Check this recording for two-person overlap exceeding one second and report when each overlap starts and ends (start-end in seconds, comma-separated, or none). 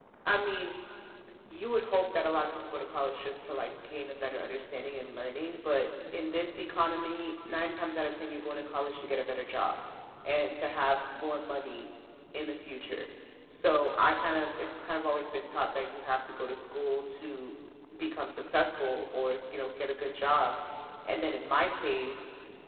none